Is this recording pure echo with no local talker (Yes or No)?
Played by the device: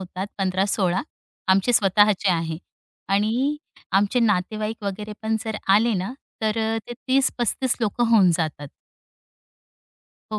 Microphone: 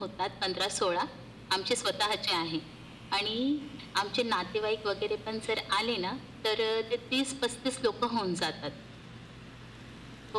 Yes